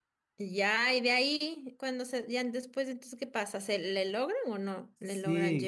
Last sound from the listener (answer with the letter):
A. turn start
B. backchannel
A